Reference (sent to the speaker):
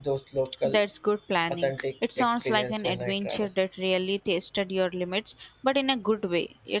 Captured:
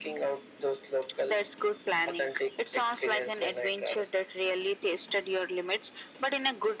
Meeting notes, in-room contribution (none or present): none